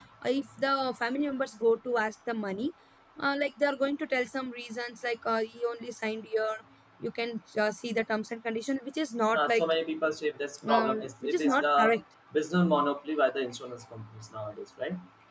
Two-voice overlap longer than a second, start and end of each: 10.7-11.9

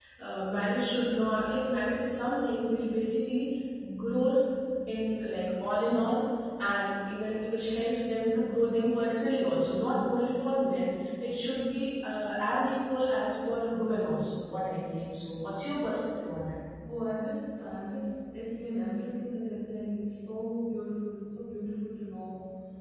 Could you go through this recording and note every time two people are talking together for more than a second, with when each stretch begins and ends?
none

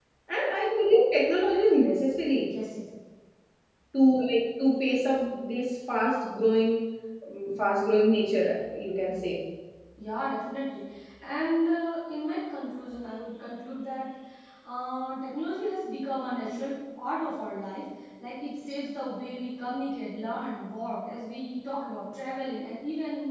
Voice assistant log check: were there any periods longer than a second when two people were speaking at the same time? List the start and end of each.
none

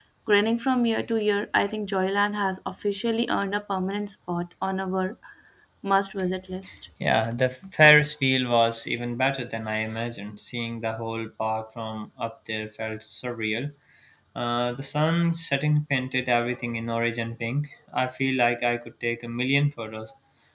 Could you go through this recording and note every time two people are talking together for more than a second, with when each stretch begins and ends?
none

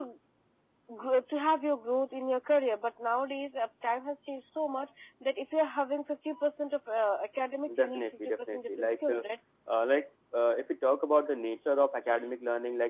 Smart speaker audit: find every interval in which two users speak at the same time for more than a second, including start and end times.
7.8-9.2

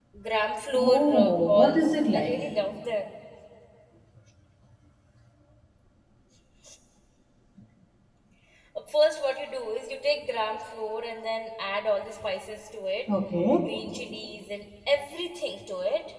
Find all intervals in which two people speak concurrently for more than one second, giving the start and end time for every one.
0.7-2.4

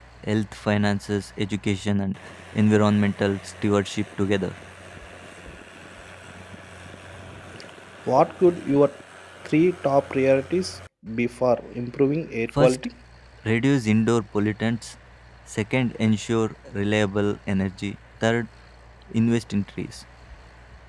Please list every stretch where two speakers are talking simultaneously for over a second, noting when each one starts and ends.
none

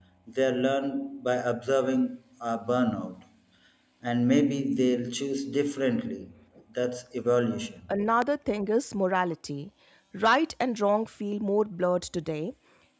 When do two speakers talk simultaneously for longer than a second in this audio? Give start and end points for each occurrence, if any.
none

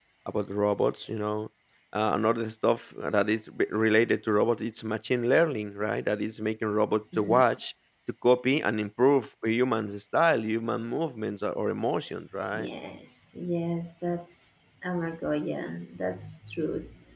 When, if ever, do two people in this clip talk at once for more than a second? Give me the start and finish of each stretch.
none

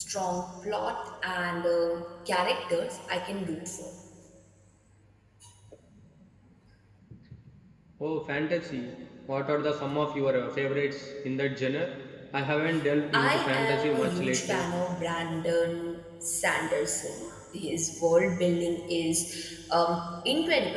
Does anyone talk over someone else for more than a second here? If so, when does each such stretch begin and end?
13.1-14.7

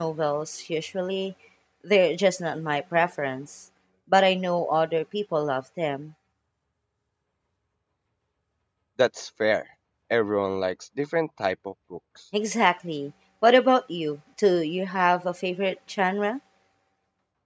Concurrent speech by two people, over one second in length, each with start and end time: none

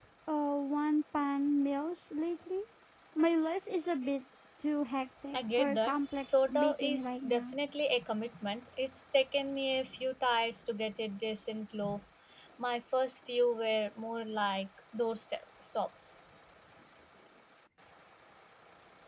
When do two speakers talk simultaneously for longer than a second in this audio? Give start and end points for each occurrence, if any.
5.3-7.5

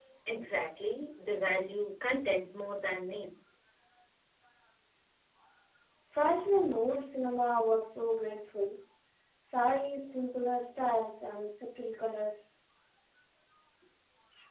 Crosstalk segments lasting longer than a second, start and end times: none

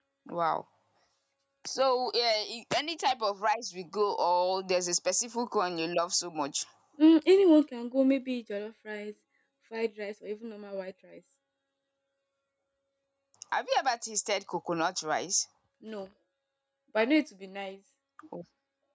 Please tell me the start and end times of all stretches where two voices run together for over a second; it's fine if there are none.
none

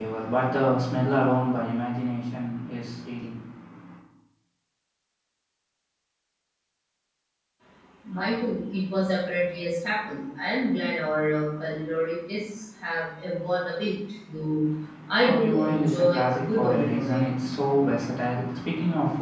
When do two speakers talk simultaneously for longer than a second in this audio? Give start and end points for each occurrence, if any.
15.2-17.3

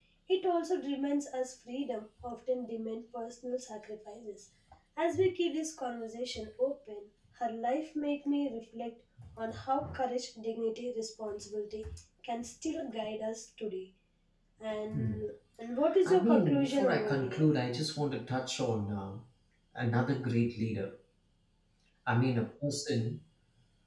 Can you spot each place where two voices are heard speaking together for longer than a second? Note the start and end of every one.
16.1-17.5

